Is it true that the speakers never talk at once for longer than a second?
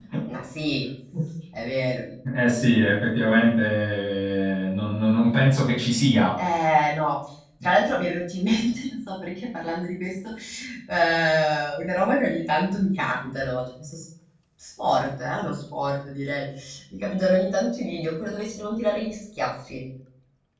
Yes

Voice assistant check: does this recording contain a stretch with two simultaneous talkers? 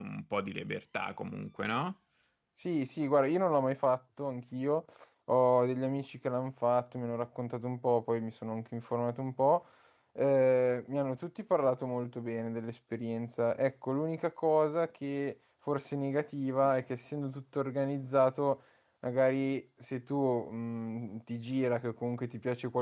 No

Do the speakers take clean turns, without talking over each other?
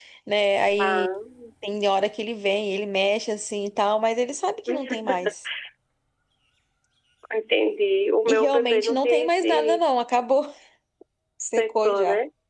No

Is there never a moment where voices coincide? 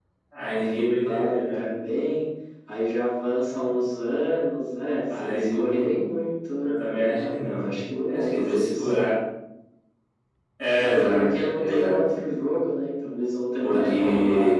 No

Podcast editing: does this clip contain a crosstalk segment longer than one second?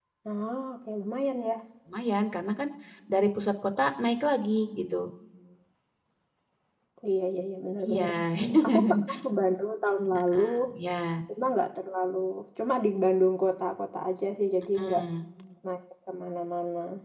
No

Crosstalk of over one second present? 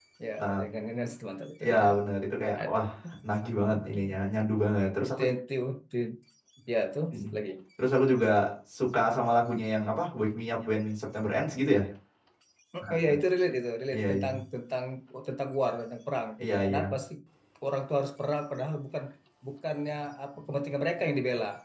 No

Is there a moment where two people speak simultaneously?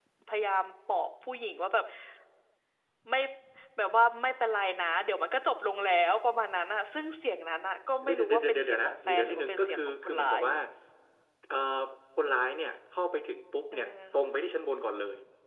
Yes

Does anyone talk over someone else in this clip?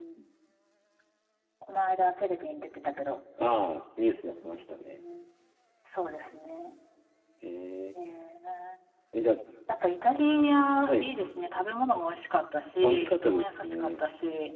Yes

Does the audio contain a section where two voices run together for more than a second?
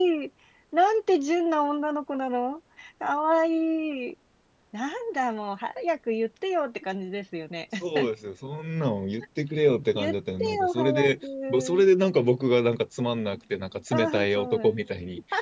Yes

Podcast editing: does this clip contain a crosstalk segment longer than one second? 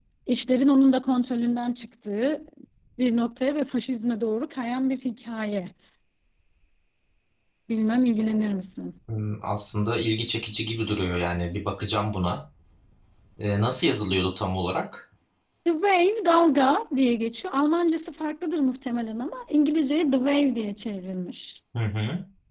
No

